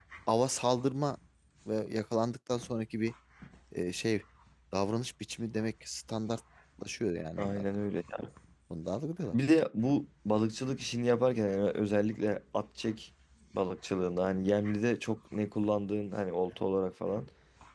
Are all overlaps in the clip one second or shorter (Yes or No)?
Yes